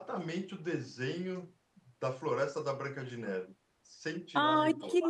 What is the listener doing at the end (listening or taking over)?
taking over